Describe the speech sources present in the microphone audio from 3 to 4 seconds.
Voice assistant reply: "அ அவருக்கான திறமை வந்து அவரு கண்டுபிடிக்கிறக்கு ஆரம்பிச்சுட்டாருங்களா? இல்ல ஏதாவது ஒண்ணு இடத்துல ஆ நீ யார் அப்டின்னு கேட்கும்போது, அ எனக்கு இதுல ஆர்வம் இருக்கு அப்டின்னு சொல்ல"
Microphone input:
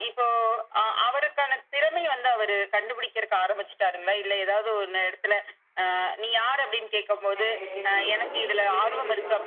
echo only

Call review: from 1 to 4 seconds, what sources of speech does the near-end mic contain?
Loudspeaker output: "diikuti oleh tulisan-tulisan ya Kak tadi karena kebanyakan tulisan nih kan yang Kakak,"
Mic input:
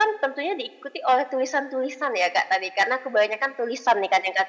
echo only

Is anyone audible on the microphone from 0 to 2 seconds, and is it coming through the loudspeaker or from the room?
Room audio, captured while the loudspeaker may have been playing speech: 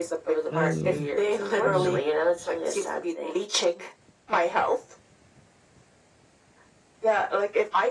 both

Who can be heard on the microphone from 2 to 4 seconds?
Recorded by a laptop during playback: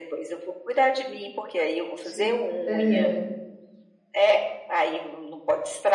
both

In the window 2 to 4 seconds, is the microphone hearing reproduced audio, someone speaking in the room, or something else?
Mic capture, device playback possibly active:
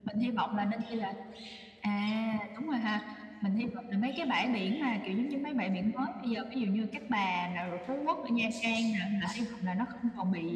echo only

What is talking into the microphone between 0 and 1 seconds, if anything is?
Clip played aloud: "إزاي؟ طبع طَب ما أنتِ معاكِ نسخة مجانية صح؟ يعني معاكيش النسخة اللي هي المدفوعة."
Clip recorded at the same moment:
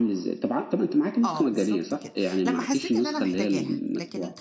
echo only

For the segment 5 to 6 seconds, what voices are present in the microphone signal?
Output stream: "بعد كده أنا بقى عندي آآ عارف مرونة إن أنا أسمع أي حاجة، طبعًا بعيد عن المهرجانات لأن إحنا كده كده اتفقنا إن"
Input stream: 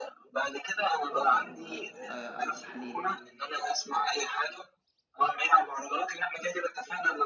echo only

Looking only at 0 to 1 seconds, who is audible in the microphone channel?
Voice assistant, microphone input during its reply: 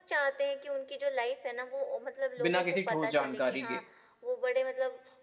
echo only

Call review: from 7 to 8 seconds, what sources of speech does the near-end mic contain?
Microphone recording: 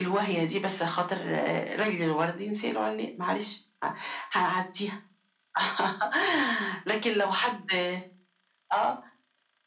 echo only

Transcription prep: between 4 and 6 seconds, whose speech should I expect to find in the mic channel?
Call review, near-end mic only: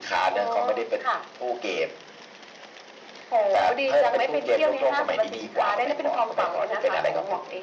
echo only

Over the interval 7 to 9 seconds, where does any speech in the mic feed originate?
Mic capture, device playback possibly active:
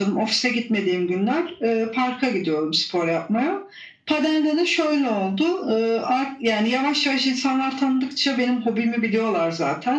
echo only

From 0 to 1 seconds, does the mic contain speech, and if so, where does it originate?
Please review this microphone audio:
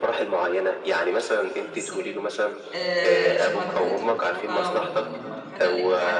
echo only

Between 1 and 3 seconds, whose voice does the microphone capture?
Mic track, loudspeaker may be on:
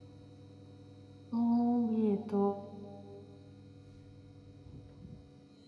user only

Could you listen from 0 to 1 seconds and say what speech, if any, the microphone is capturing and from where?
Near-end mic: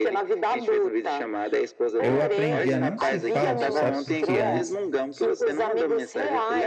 echo only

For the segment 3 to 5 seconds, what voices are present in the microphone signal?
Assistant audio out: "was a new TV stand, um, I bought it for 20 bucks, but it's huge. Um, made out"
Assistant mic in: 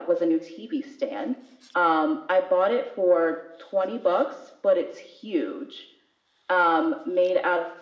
echo only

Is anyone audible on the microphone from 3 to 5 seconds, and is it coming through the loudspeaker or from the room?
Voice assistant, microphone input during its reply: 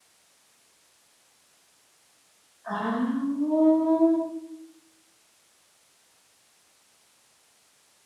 user only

